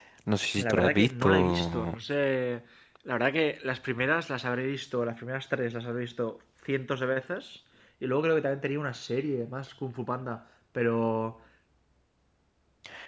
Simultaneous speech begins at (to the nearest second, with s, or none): 1 s